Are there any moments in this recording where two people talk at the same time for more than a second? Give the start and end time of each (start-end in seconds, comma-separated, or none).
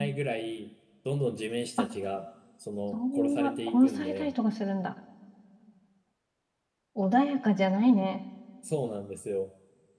2.9-4.3